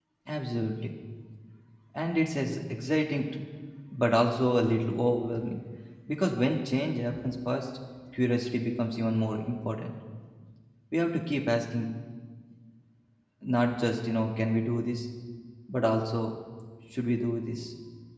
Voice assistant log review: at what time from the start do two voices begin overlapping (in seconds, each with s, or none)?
none